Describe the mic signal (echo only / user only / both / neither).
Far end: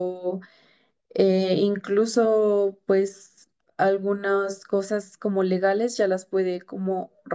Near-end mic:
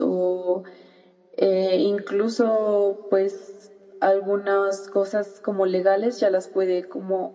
echo only